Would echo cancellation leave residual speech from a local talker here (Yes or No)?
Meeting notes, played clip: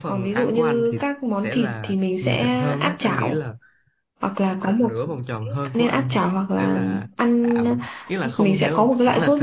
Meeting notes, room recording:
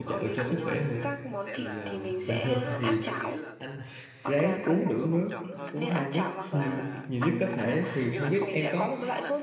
Yes